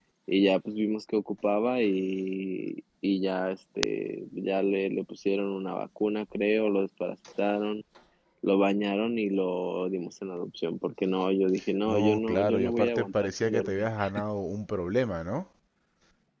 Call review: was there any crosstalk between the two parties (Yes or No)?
Yes